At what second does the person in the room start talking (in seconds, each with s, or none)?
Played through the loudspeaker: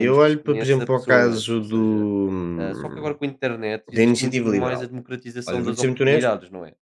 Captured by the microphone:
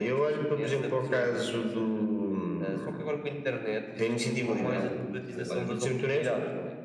4.4 s